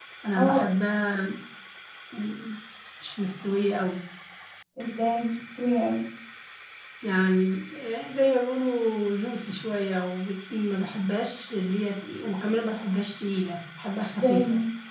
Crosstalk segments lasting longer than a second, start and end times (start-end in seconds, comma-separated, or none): none